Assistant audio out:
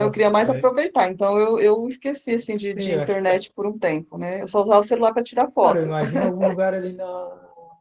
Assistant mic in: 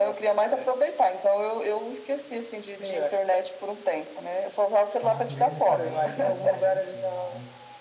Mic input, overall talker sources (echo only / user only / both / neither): both